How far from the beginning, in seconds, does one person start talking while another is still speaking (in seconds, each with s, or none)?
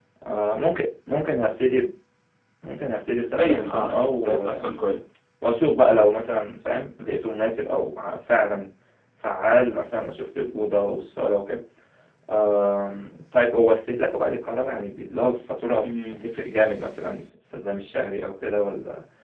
3.1 s